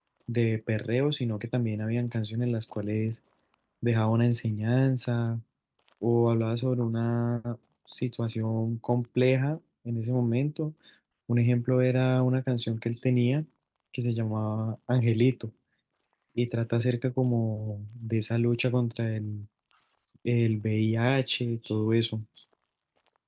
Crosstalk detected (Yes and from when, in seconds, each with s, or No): No